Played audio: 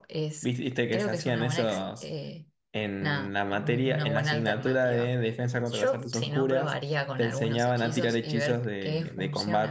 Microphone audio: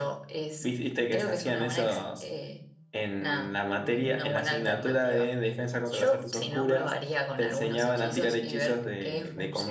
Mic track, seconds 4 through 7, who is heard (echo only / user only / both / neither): echo only